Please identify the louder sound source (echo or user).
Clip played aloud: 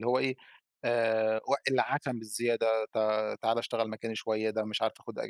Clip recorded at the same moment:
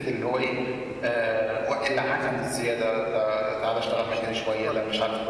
echo